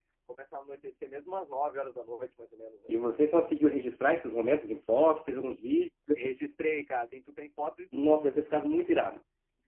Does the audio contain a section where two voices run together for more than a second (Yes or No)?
No